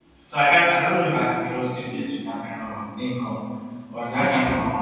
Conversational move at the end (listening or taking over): listening